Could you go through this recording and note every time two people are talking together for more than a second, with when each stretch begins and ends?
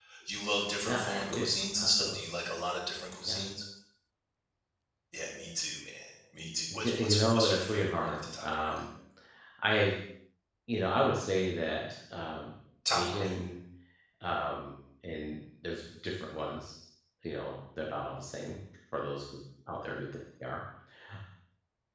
0.8-2.2, 6.8-8.8

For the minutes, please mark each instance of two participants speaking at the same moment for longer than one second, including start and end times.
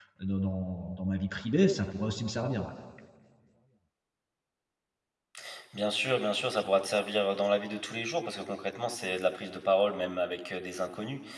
none

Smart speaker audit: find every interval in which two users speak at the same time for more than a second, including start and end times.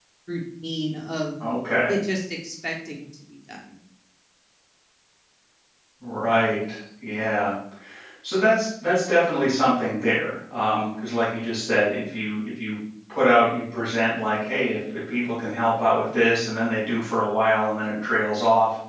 none

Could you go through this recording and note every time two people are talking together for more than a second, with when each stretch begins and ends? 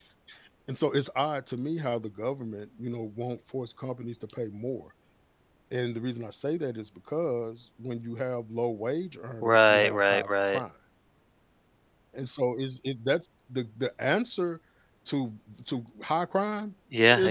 9.4-10.6

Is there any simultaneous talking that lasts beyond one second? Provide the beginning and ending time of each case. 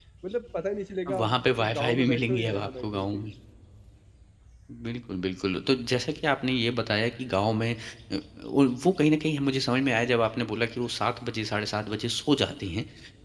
1.1-3.2

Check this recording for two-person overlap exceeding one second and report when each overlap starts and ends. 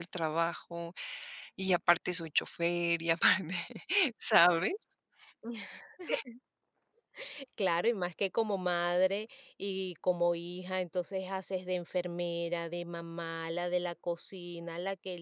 none

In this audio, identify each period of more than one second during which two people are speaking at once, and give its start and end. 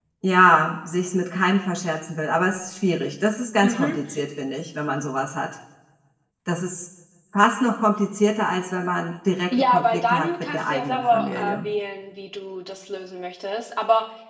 9.5-11.7

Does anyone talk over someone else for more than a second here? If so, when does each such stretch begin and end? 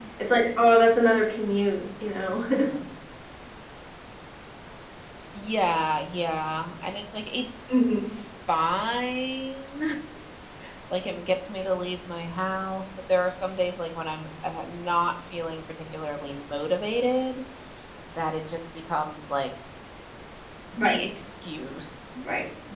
none

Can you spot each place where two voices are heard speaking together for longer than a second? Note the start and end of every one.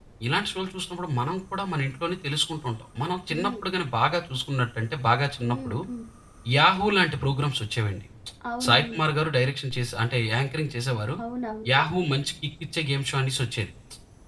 none

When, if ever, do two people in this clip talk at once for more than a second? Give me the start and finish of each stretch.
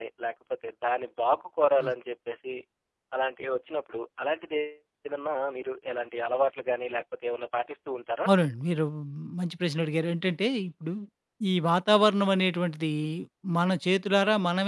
none

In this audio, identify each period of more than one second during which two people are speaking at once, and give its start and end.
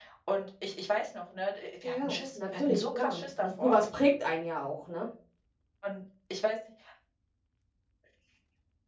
1.8-3.8

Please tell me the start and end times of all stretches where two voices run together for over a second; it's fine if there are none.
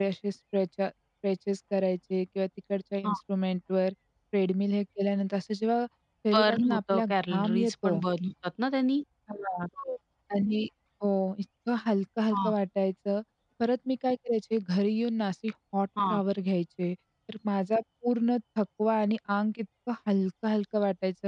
6.3-8.0

